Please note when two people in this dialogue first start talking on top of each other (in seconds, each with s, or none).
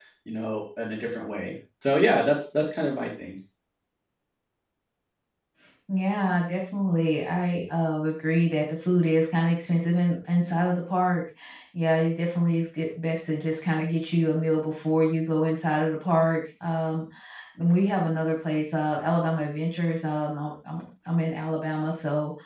none